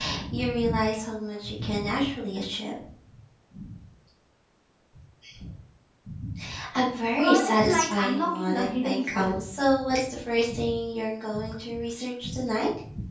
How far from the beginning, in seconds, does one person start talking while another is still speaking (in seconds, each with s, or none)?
7.2 s